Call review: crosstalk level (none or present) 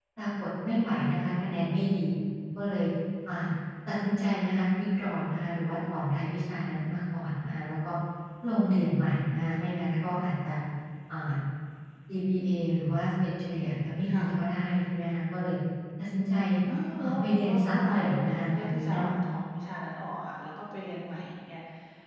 present